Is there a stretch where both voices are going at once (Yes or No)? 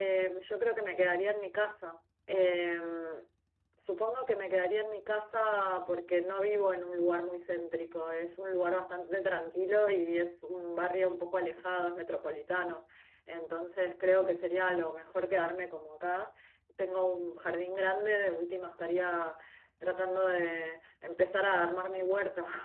No